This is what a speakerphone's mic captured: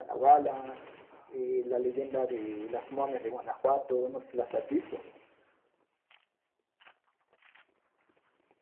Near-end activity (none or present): none